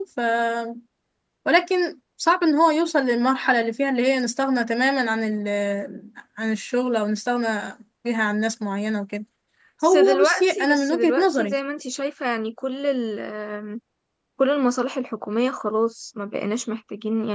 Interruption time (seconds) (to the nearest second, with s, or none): 10 s